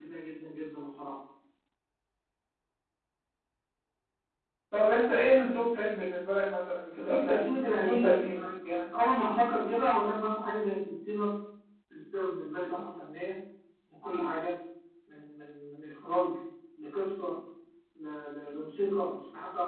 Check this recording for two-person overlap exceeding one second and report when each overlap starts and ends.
7.0-8.8

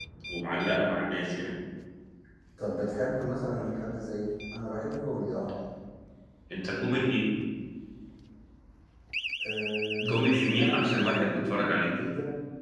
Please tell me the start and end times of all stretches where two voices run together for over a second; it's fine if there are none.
10.1-11.9

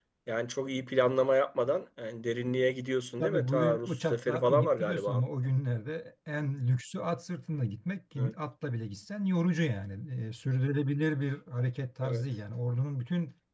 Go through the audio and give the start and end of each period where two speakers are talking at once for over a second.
3.2-5.2

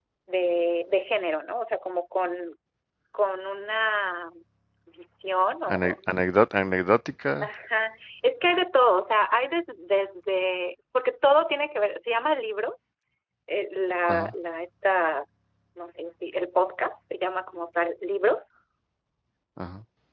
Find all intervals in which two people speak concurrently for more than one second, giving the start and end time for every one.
none

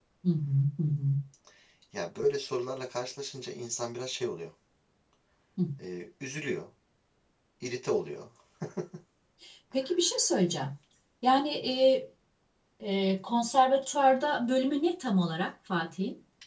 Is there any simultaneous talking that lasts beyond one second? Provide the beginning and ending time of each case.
none

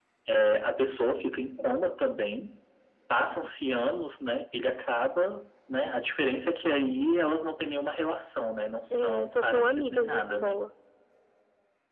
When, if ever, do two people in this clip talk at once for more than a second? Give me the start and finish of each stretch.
8.9-10.6

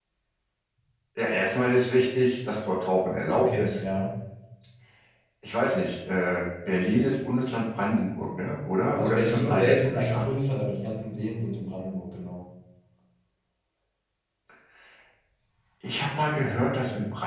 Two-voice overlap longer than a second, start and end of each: 9.0-10.3

